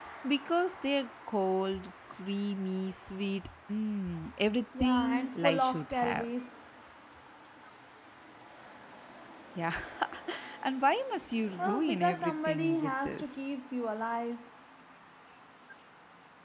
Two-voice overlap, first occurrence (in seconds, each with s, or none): 4.8 s